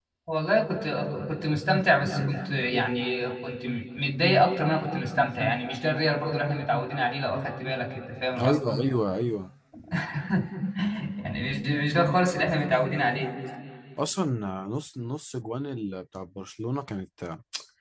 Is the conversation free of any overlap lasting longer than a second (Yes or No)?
Yes